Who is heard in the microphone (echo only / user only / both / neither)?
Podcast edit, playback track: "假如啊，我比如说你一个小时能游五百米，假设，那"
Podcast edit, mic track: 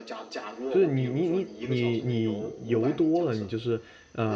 both